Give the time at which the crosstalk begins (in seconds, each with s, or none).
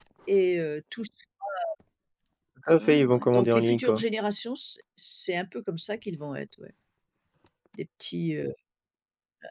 2.8 s